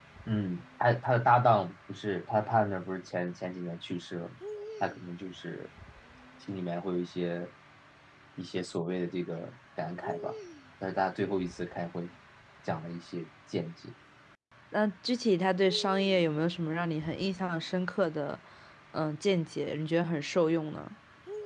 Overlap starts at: none

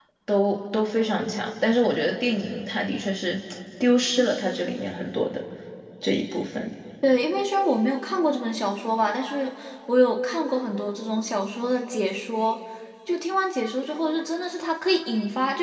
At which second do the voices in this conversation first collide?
none

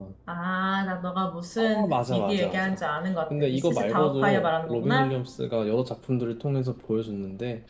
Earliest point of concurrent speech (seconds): 2 s

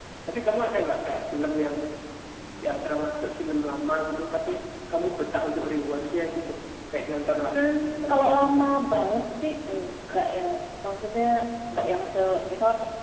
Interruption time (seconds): 8 s

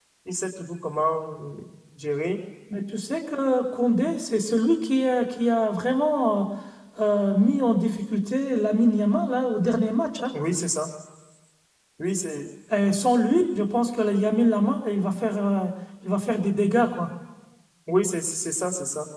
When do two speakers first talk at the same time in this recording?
none

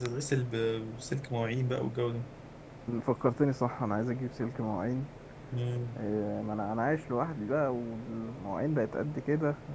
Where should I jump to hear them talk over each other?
none

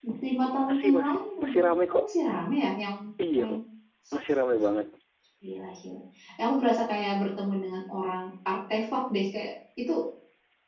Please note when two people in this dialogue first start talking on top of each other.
1 s

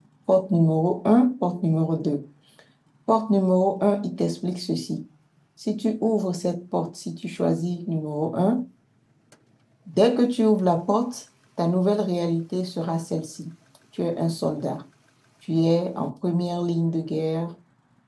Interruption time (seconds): none

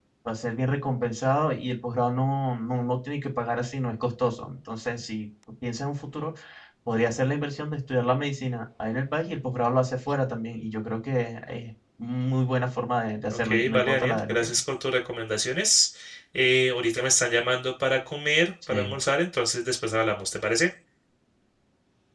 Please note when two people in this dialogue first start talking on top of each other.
13 s

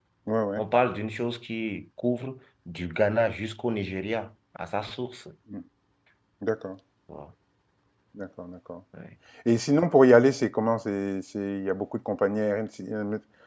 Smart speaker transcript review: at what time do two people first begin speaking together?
none

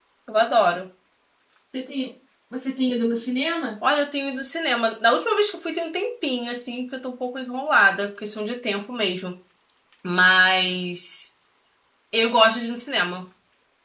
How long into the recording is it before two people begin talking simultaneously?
none

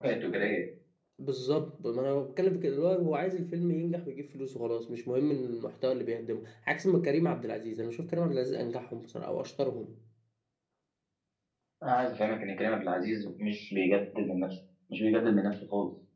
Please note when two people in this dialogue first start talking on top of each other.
none

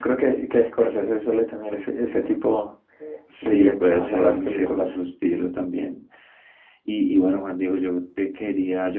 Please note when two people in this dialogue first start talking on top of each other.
3 s

